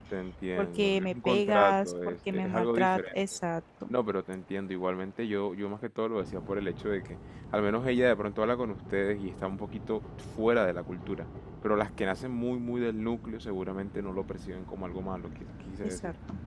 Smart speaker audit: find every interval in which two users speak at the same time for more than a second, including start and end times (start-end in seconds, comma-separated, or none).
0.6-3.1